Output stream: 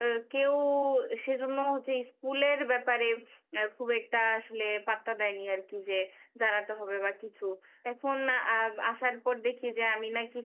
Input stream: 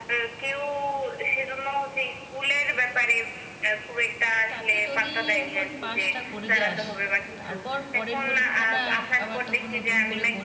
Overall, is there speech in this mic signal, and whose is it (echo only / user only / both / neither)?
both